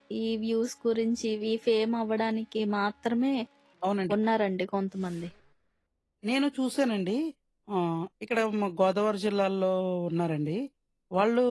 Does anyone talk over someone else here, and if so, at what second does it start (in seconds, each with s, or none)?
none